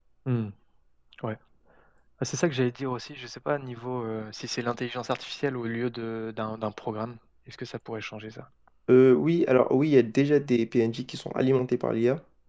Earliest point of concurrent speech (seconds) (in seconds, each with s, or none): none